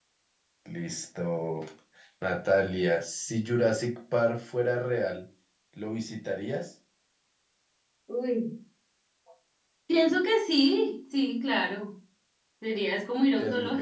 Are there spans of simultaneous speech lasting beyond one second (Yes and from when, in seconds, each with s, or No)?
No